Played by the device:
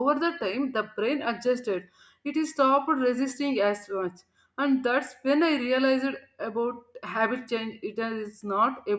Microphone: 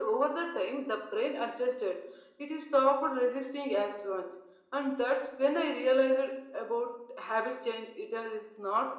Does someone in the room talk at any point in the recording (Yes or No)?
No